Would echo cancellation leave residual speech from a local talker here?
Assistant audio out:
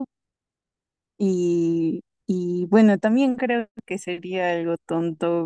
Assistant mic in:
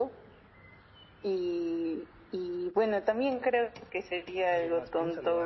Yes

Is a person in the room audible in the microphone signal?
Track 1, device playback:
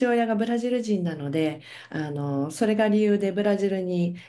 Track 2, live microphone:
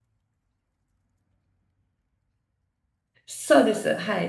Yes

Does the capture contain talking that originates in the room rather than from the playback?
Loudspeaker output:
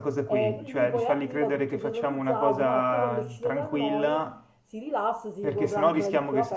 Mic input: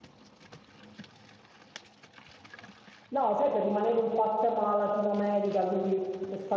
Yes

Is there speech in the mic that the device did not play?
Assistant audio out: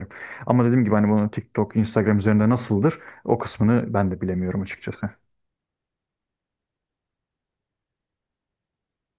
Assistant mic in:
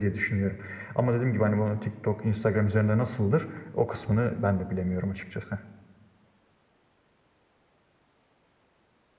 No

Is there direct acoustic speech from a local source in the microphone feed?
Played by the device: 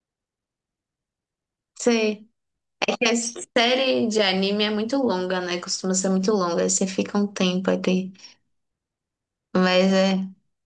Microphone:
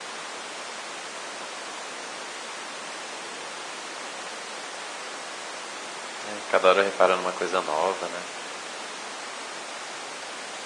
Yes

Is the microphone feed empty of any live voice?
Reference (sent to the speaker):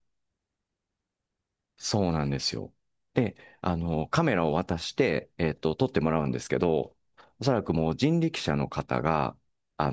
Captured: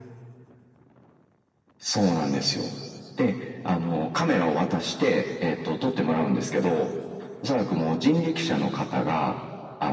Yes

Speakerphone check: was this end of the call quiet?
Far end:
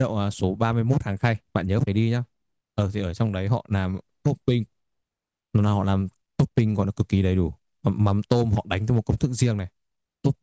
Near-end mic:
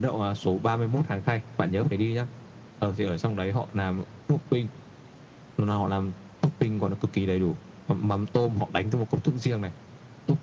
Yes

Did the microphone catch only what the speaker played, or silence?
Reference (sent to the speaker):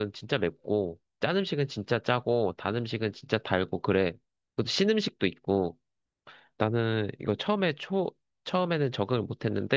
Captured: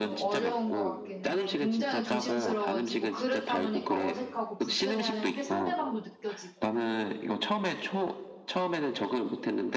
No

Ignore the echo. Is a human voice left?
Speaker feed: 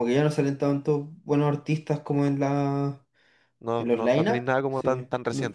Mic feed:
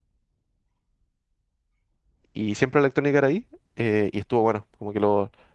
Yes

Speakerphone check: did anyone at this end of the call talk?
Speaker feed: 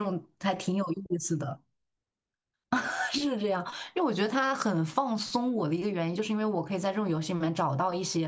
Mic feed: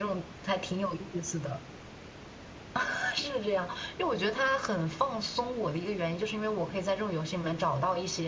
No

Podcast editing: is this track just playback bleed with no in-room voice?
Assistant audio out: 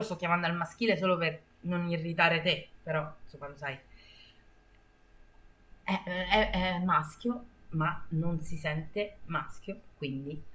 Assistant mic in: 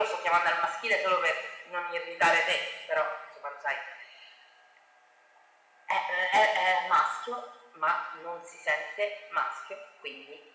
Yes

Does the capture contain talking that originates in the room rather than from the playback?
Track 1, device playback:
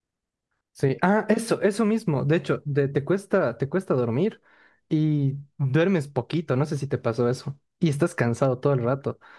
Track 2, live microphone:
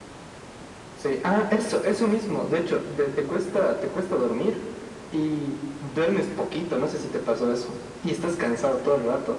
No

